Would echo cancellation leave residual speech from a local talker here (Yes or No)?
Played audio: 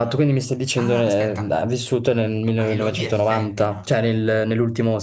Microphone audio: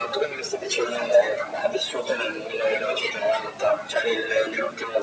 No